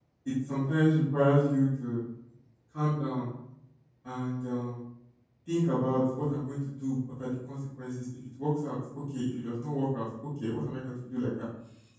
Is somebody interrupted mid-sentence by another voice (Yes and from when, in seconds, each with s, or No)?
No